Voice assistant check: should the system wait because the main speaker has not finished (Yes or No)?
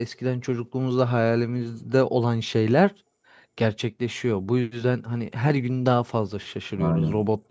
Yes